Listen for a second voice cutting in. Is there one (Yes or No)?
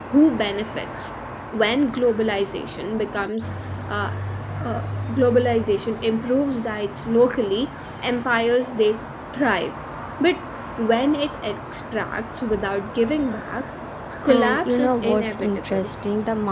Yes